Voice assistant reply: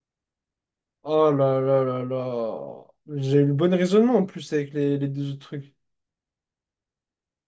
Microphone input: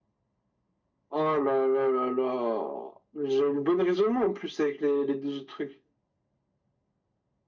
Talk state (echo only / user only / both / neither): echo only